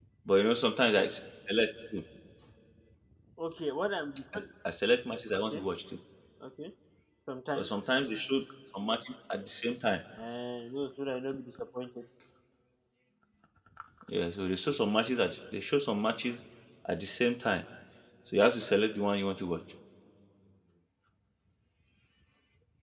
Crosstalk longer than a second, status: none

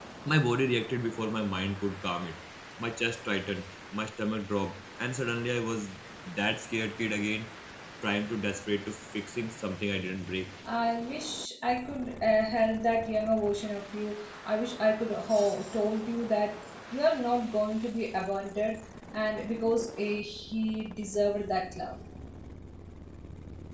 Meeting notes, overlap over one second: none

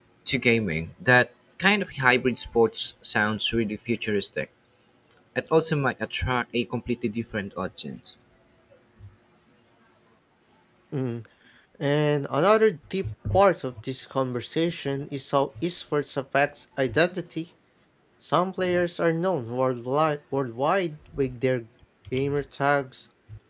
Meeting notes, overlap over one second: none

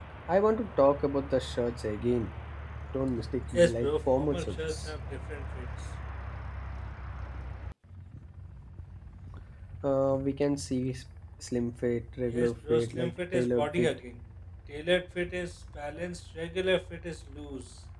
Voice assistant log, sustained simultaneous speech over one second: present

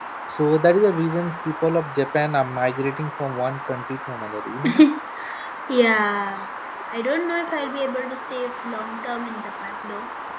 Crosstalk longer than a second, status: none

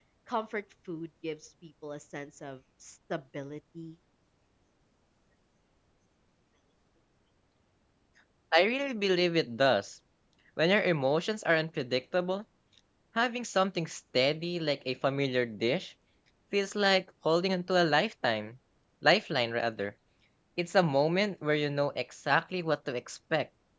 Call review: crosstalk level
none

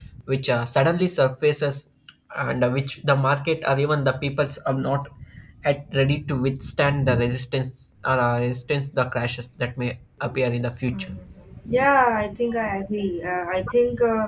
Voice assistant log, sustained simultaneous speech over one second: none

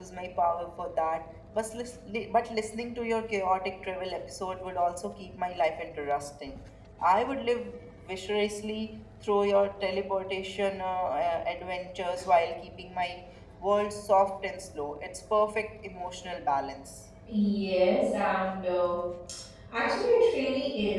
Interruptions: none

